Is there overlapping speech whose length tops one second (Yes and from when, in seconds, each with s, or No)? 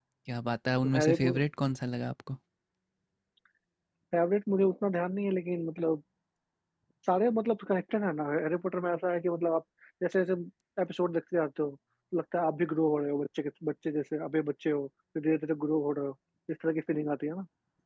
No